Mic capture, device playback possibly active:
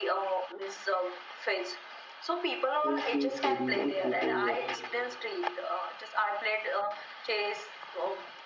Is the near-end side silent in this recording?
No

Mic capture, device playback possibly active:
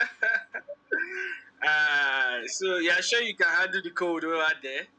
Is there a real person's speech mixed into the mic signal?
No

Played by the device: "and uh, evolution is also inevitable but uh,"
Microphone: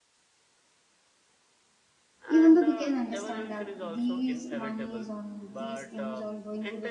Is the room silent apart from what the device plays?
No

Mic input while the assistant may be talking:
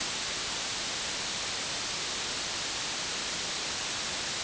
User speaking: No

